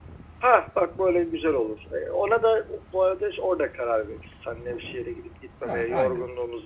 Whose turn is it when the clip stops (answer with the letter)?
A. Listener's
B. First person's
B